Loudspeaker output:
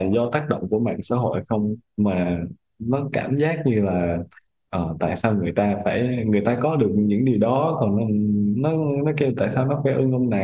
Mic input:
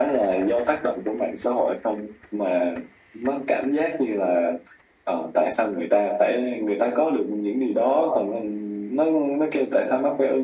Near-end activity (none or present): none